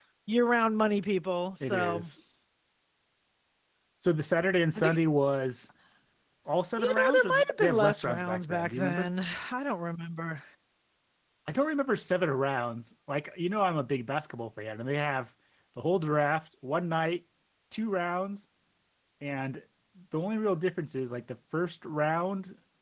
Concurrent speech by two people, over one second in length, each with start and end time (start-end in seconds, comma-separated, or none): 6.8-9.1